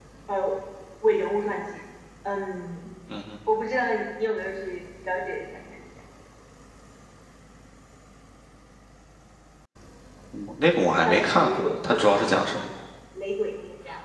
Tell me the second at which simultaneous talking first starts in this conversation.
11.0 s

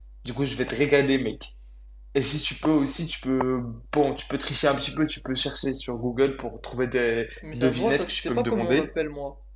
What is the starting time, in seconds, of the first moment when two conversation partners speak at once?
7.4 s

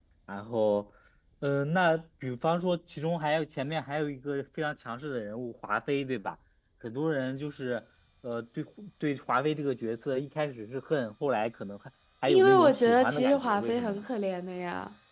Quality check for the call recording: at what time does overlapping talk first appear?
12.3 s

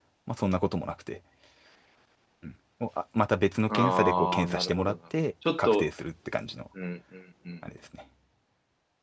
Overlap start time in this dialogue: 3.7 s

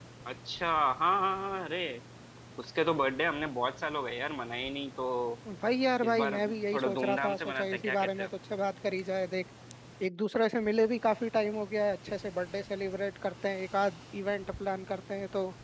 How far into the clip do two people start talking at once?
6.0 s

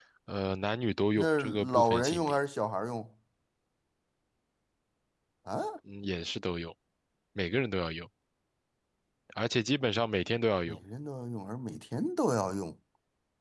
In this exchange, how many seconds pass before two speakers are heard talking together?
1.2 s

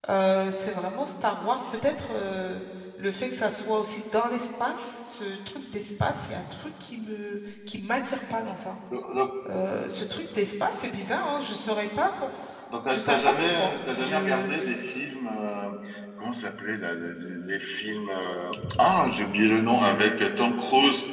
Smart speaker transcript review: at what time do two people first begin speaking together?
12.9 s

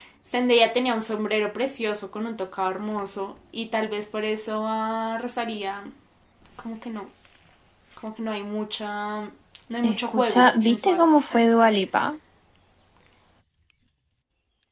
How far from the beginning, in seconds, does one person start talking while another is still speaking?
9.8 s

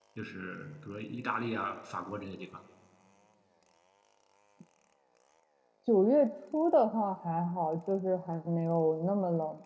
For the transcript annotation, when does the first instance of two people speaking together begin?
none

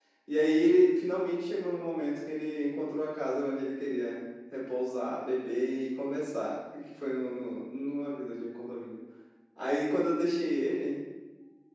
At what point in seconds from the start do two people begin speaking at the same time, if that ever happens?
none

